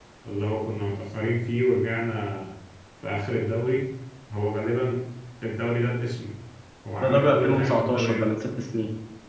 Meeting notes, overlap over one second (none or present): present